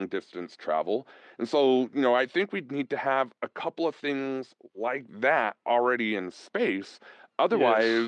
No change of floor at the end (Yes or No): Yes